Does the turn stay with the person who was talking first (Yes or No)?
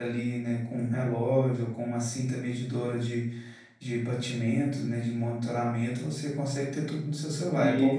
No